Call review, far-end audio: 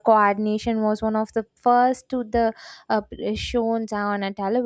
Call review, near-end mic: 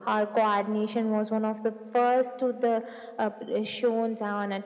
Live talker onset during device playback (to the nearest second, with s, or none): none